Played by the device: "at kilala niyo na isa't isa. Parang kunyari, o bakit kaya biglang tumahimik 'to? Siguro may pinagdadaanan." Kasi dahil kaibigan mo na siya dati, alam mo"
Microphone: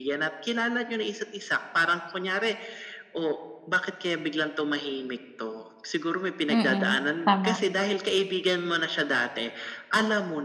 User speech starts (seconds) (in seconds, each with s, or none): 6.5 s